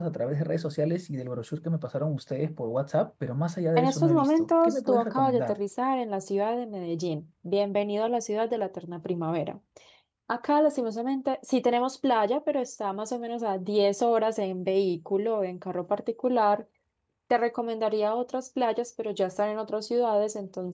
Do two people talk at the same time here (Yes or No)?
Yes